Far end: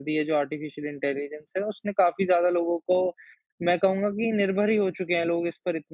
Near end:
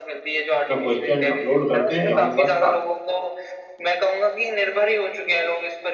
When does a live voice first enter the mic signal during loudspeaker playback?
1 s

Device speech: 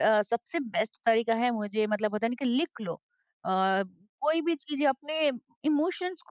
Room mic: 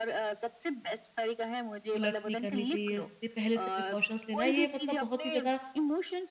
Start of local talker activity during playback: 2 s

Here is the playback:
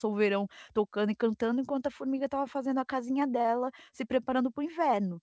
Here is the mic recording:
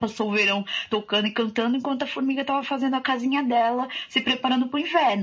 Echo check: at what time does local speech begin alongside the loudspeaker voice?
none

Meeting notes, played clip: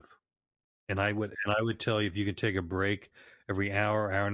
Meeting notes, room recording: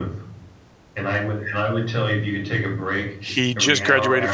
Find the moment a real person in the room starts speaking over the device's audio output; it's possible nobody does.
3 s

